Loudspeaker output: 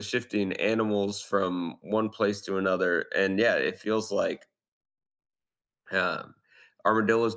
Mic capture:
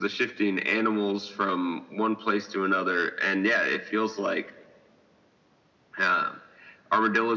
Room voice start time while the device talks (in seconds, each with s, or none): none